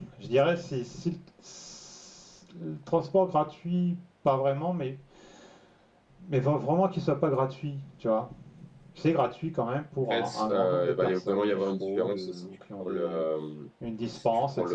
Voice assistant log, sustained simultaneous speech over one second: present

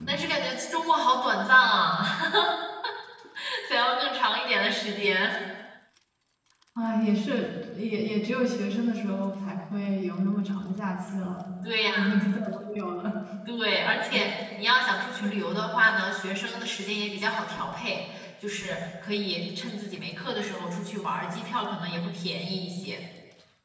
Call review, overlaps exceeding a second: none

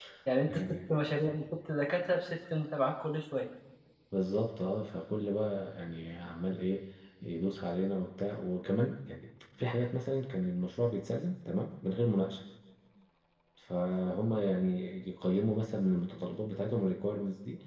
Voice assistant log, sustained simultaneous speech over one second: none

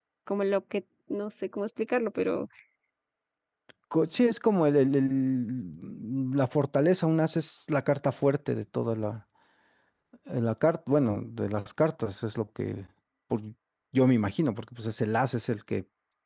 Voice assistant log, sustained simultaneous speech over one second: none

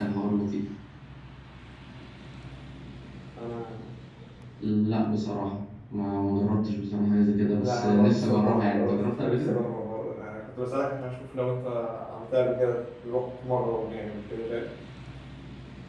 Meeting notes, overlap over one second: present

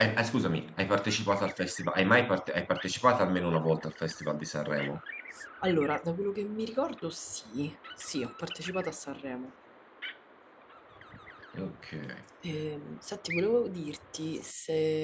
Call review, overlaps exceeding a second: none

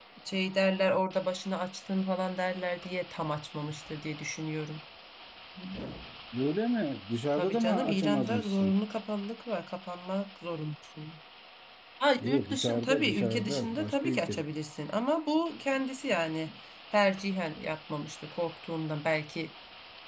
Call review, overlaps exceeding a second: present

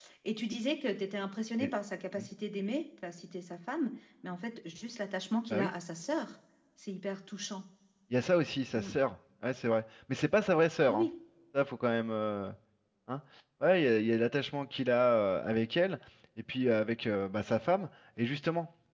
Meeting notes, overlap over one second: none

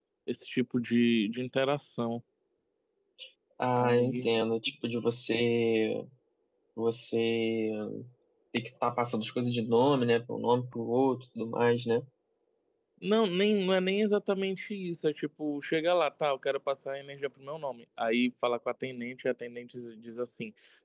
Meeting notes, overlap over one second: none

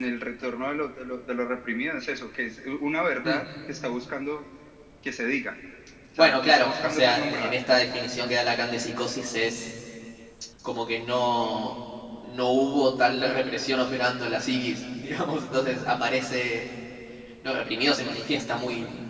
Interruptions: present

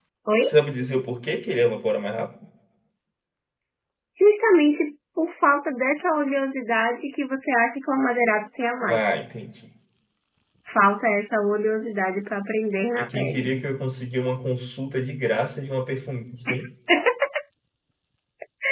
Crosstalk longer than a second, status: none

